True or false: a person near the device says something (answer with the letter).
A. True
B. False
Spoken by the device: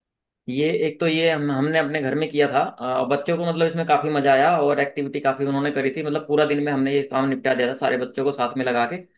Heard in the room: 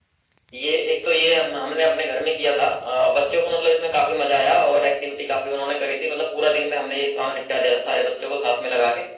B